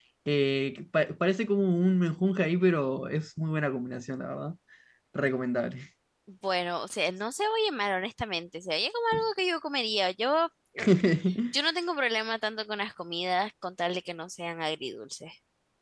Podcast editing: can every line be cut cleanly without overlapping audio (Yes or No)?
Yes